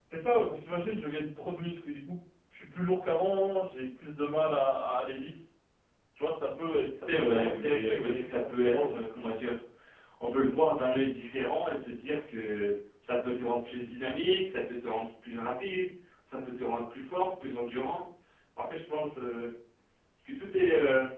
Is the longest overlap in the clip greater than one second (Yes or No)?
Yes